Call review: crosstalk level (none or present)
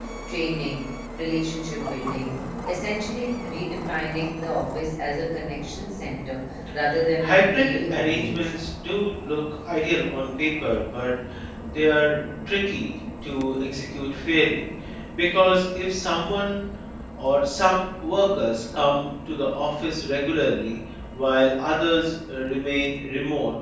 present